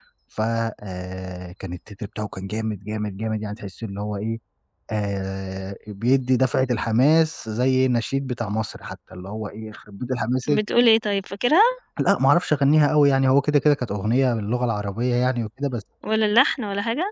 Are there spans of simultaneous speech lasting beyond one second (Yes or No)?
No